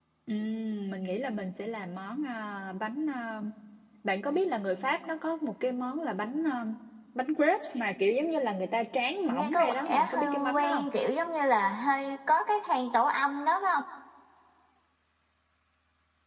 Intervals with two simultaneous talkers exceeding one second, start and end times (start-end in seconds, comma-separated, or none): 9.3-10.8